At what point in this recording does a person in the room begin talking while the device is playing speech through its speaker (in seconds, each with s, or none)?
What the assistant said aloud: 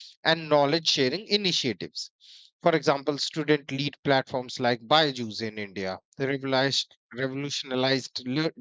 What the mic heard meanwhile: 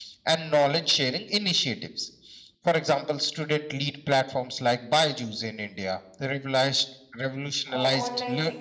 7.7 s